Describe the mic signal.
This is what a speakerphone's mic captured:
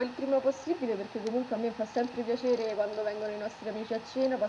echo only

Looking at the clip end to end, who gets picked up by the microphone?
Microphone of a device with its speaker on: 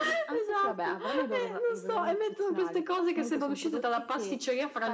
echo only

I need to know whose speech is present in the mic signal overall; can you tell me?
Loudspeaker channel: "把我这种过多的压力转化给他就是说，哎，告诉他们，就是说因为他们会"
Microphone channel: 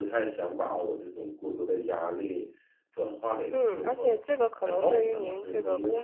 both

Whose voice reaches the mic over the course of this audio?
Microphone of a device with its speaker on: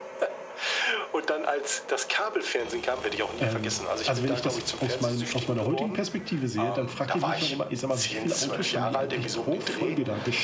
both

